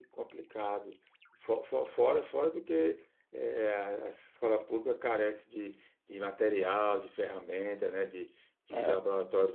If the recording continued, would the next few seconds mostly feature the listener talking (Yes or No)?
No